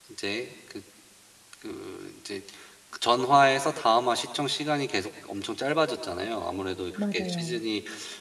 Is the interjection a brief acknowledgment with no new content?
Yes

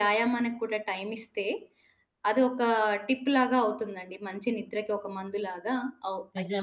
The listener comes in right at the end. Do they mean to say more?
Yes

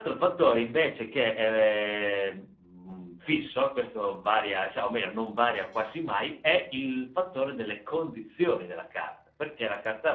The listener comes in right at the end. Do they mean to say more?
No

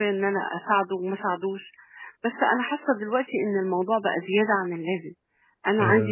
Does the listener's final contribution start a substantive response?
No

